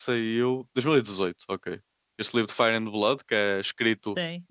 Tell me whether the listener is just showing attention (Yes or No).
Yes